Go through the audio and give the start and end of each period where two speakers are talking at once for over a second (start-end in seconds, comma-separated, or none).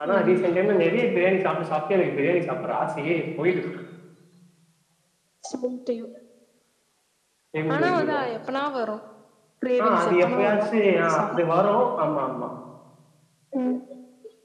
9.8-11.4